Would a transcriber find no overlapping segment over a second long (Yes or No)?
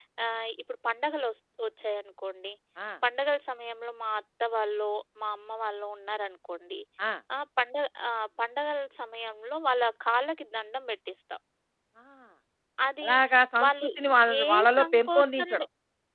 No